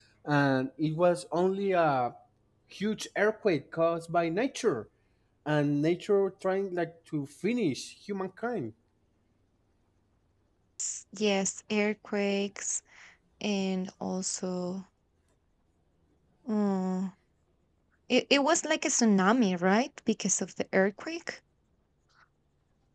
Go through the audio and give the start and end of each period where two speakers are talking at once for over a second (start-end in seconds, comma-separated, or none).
none